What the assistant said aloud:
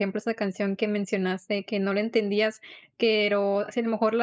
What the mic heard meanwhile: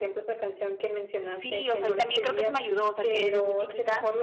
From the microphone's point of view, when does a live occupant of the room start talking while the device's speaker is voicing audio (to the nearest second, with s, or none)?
1 s